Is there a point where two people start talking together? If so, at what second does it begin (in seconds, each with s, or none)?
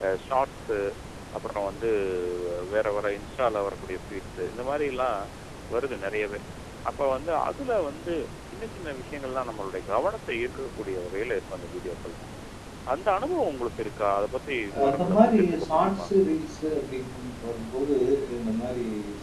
14.7 s